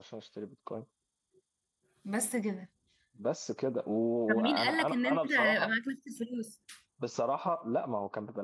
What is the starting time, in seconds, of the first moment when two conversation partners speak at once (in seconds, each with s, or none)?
4.3 s